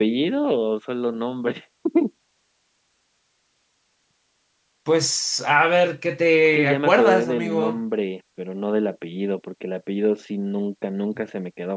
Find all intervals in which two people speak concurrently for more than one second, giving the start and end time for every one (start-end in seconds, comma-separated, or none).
6.5-7.8